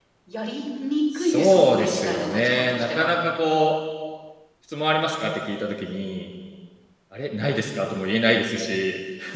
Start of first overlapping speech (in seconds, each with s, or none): 1.2 s